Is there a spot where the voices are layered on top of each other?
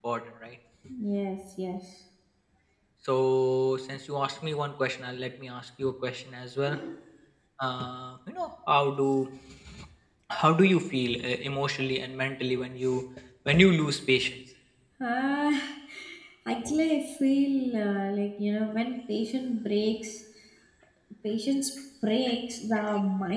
No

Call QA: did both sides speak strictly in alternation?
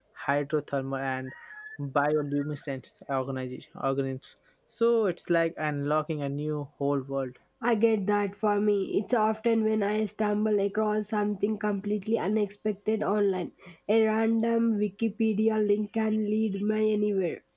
Yes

